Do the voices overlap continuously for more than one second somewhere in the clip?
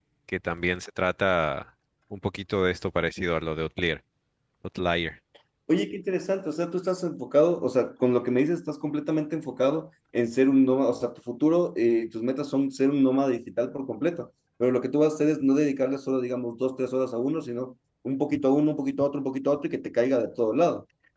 No

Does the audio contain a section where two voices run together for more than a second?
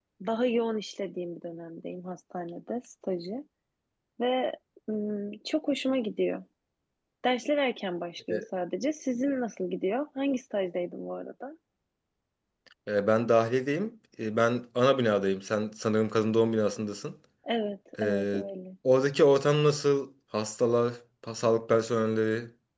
No

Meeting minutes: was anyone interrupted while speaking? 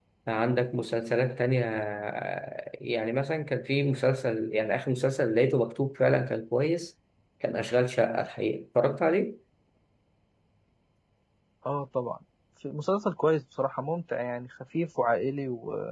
No

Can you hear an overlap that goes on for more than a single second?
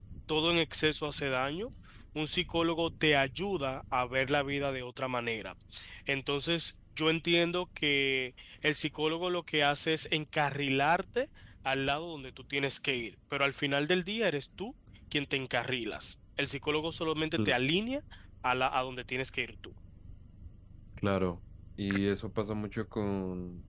No

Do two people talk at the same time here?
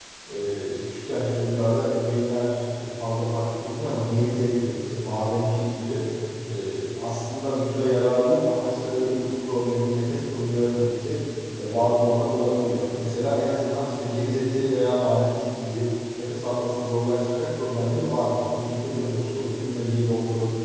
No

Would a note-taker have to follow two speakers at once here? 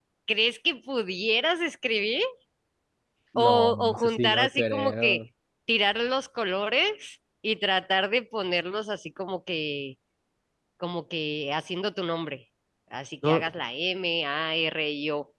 Yes, from 3.4 s

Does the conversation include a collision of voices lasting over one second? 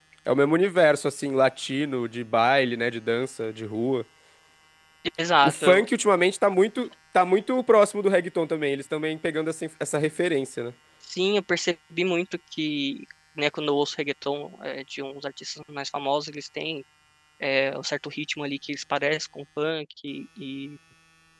No

